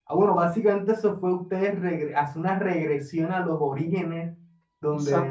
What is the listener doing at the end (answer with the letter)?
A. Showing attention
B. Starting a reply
A